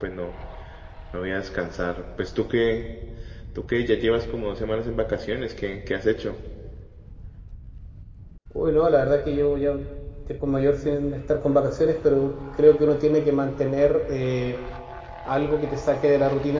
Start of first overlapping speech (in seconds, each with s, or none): none